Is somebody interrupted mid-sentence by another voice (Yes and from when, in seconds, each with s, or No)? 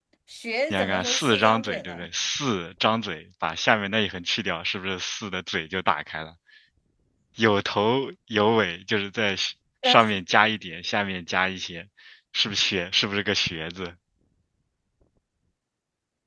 Yes, from 0.7 s